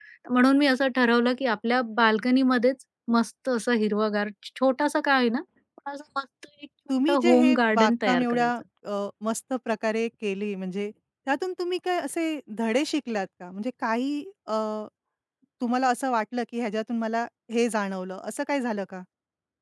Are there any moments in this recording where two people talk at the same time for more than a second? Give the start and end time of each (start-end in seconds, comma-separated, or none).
7.0-8.5